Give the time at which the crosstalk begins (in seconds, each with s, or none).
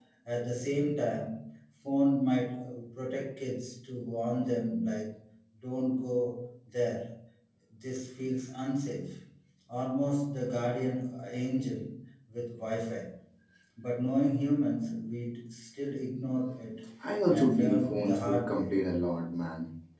17.3 s